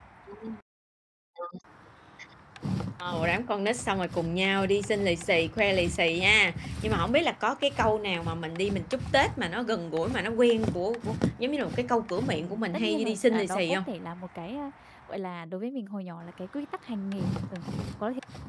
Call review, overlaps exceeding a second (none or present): present